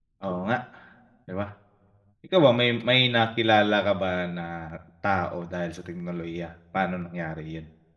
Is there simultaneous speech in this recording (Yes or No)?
No